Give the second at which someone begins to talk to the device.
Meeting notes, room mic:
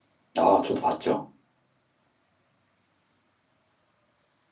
0 s

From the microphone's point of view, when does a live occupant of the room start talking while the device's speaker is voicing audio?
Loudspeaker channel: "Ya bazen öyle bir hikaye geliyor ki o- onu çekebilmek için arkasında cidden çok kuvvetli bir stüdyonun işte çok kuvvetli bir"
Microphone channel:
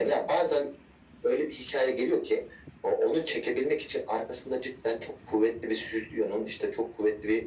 none

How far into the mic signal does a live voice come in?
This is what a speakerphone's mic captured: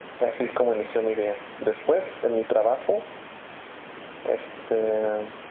none

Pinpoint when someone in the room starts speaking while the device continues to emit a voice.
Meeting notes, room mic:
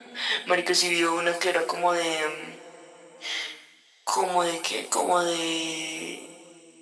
none

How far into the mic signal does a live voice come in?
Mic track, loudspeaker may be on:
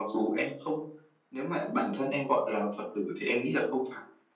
none

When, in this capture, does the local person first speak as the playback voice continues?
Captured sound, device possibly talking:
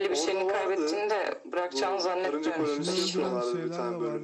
3 s

